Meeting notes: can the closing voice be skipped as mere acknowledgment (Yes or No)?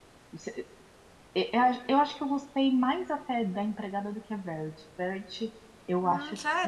Yes